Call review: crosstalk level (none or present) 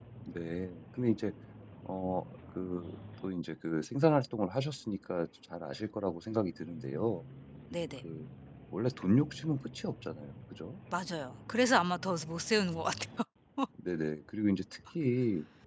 none